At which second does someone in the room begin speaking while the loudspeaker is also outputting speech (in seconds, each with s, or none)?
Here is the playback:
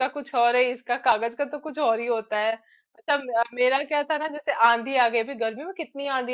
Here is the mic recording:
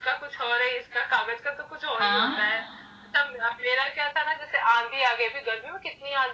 2.0 s